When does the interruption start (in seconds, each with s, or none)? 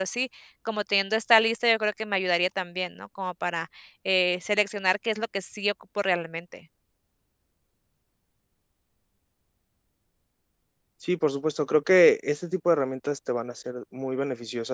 none